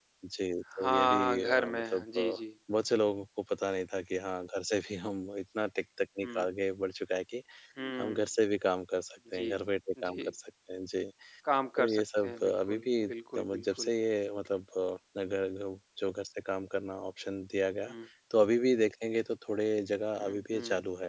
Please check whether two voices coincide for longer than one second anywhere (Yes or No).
Yes